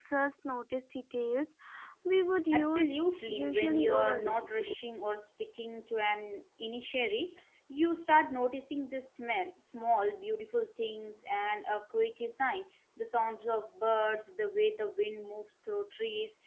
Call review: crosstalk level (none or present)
present